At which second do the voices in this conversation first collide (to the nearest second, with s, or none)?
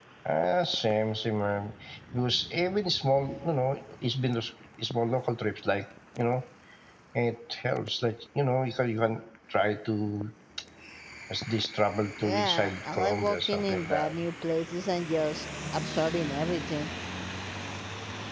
12 s